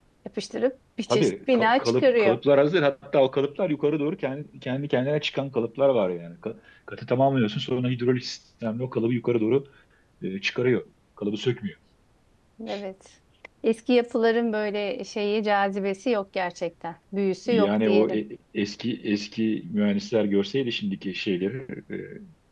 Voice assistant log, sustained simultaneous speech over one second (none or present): present